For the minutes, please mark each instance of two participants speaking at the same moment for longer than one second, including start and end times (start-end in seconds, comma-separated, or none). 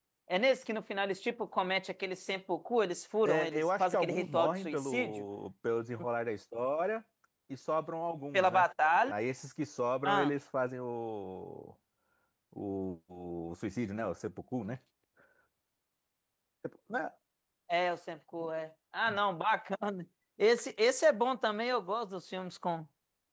3.2-5.2